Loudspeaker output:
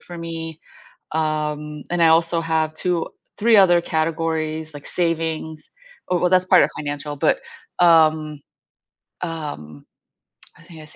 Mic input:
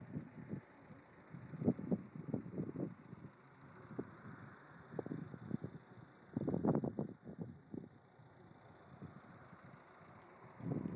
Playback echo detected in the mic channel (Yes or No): No